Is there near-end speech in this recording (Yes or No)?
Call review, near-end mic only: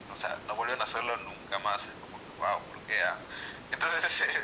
No